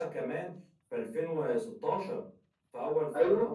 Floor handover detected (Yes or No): Yes